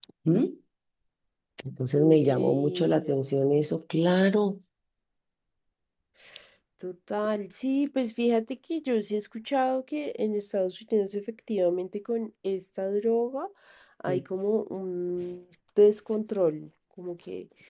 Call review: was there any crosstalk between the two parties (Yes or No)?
Yes